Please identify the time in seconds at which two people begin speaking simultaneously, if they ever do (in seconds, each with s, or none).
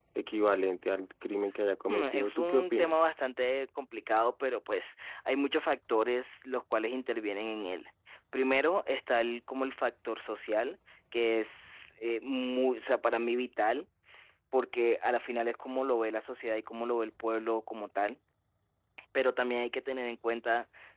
1.9 s